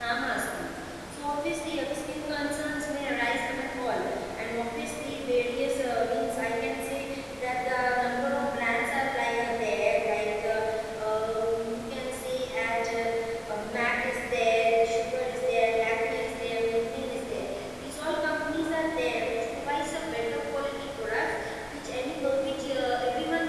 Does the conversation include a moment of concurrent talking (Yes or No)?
No